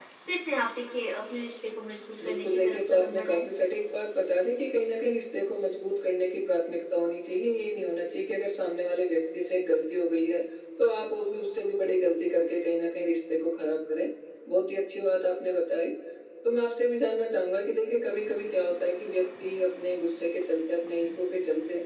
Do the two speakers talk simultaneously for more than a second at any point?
Yes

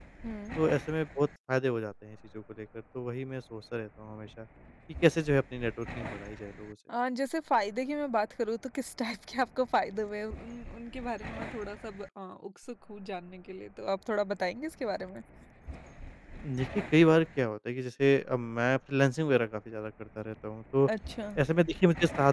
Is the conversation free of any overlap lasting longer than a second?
Yes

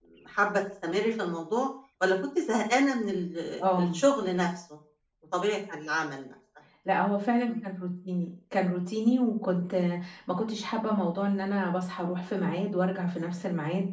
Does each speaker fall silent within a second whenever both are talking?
Yes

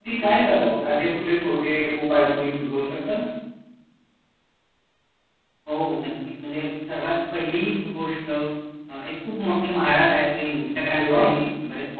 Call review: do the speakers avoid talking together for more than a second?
Yes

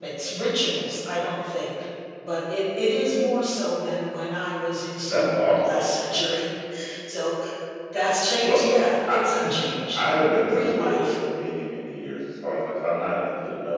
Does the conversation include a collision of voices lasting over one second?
Yes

